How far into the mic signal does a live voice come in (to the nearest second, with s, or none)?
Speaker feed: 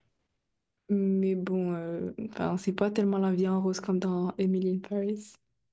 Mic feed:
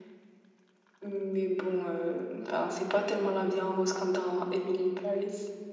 none